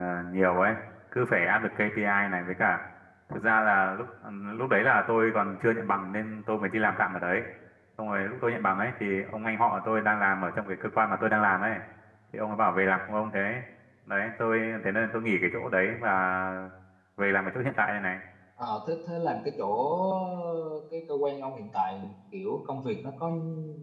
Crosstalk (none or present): none